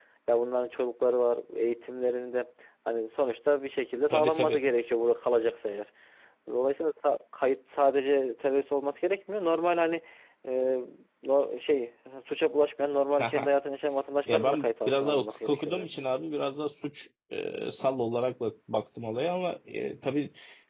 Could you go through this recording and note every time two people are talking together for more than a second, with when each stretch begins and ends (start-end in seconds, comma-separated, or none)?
14.3-15.7